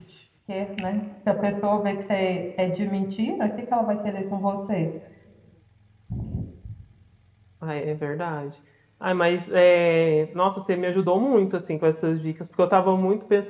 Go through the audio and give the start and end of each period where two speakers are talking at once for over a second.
none

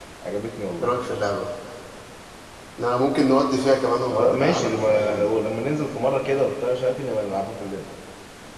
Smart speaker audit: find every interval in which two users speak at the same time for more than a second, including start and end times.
4.1-5.3

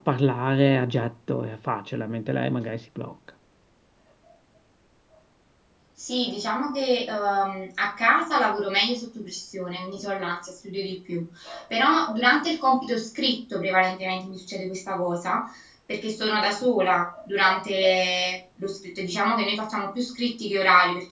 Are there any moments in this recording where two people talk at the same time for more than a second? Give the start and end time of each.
none

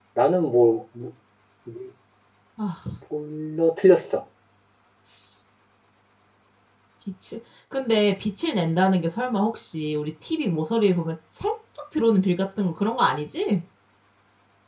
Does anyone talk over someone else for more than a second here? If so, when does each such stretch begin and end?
none

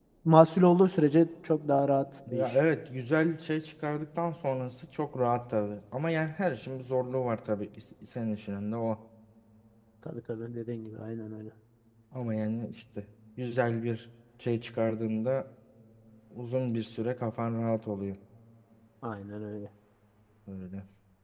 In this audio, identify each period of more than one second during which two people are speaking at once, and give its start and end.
none

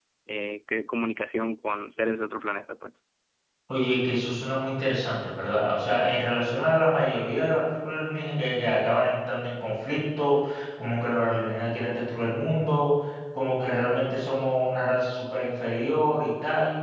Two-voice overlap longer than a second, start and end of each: none

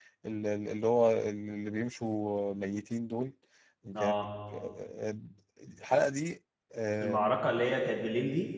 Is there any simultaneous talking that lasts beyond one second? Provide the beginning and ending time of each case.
none

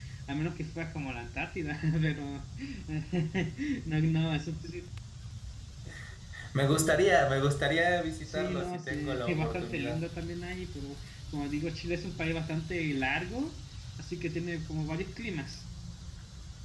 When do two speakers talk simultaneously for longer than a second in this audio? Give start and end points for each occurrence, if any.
8.2-10.0

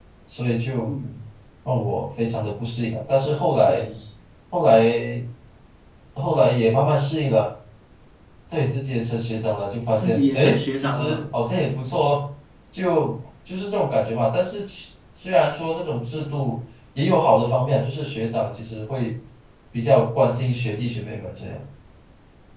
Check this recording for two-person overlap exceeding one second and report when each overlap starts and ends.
10.0-11.3

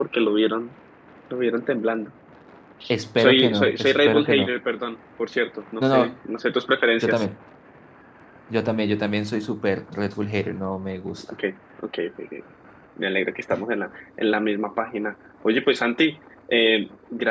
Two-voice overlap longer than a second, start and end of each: 3.2-4.5

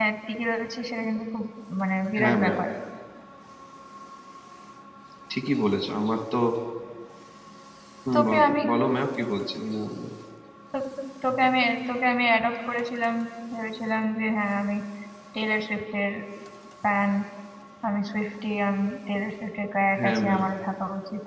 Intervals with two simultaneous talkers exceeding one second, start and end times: none

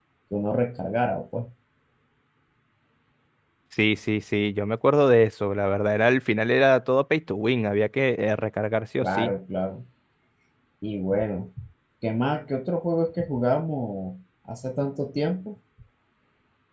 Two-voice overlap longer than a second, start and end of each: none

